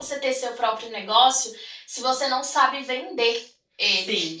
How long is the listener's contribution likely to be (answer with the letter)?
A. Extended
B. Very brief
B